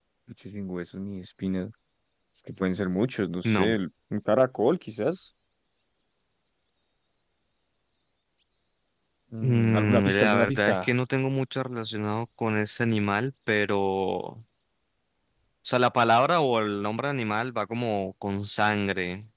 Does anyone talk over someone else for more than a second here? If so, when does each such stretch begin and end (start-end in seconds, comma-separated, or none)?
9.4-10.9